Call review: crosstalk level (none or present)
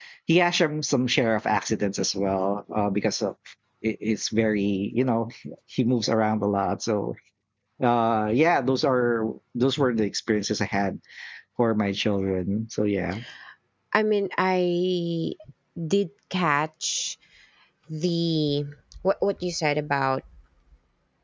none